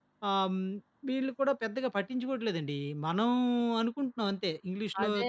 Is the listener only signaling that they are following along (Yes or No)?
No